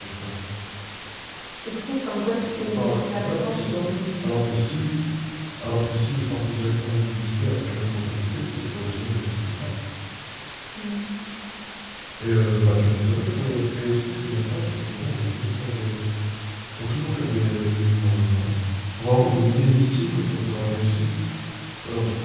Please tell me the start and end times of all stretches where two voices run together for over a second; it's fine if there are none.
2.4-3.8

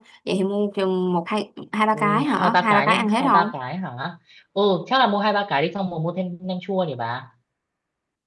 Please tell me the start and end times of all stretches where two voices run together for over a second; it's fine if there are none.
1.9-3.5

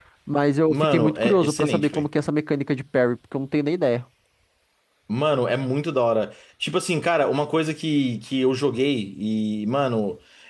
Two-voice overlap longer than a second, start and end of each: 0.7-2.1

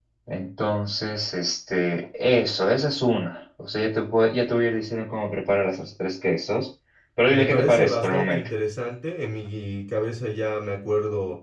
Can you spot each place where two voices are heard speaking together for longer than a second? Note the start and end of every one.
7.3-8.5

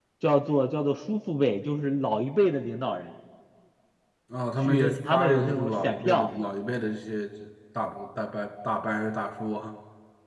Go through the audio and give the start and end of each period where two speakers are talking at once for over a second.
4.6-6.3

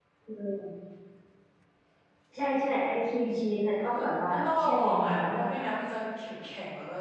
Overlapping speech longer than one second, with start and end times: 3.9-5.5

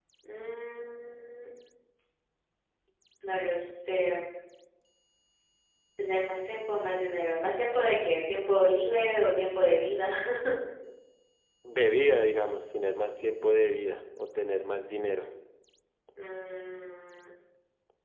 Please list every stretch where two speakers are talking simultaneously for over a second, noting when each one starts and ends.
none

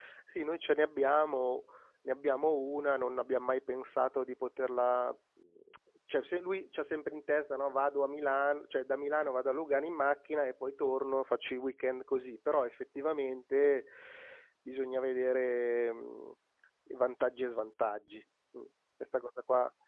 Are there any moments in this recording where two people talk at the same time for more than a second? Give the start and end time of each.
none

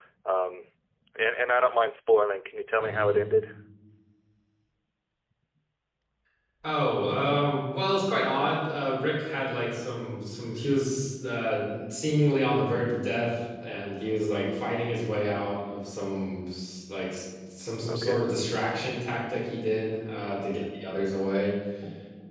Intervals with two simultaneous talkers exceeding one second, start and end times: none

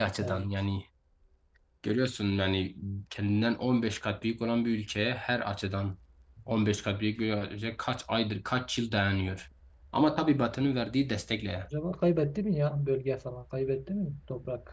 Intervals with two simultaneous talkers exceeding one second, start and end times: none

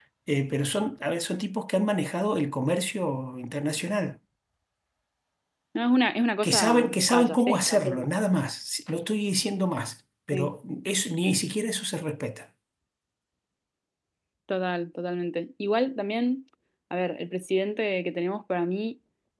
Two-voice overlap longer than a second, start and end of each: 6.4-8.0

